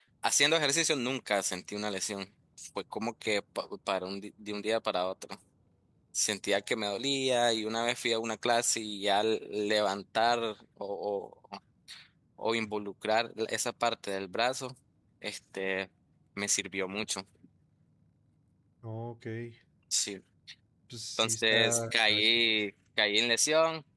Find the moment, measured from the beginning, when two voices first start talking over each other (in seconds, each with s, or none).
21.2 s